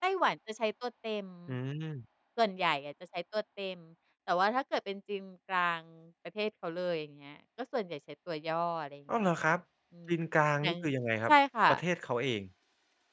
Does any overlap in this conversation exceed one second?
No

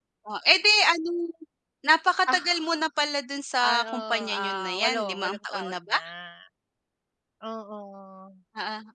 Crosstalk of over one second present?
Yes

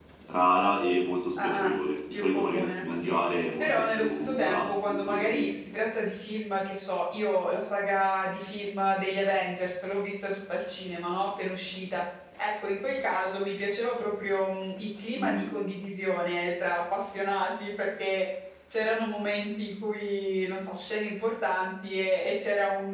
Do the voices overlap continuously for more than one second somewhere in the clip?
Yes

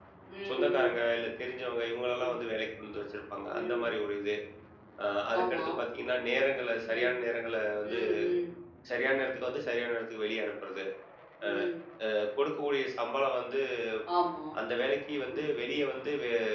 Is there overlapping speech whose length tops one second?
No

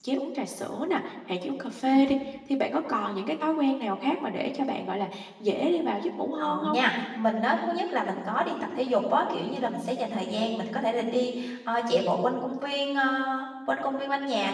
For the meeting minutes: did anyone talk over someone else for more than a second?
No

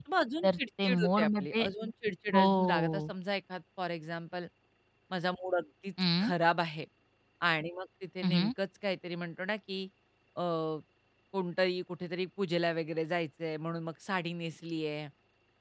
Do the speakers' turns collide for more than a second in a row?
Yes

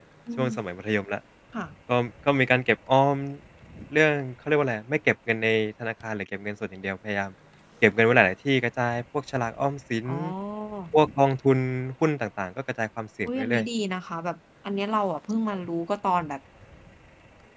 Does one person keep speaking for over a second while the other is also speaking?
No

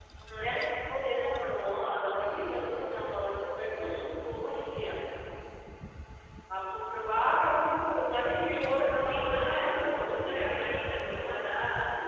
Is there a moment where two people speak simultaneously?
Yes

